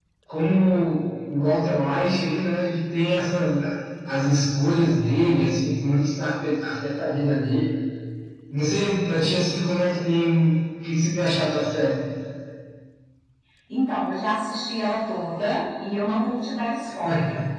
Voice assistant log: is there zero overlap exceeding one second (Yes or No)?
Yes